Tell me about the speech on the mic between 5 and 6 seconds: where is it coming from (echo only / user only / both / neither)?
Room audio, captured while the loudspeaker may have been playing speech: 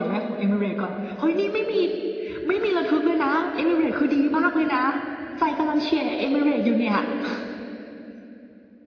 echo only